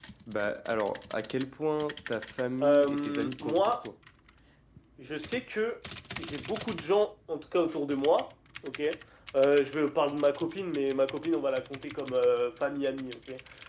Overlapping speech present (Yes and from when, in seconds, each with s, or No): Yes, from 2.6 s